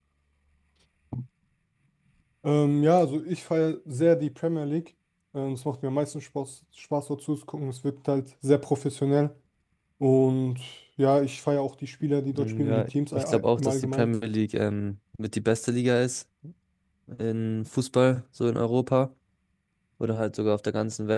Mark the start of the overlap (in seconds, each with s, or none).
12.3 s